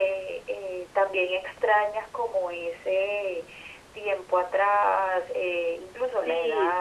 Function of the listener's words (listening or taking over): taking over